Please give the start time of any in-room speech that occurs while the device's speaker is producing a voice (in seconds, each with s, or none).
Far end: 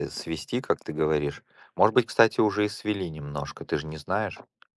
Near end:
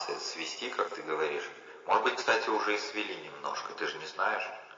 none